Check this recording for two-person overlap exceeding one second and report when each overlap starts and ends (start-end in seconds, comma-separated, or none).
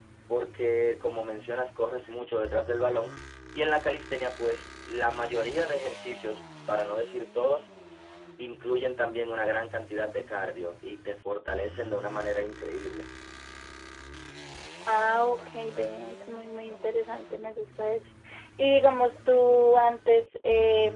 none